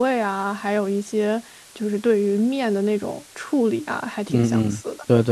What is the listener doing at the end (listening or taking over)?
taking over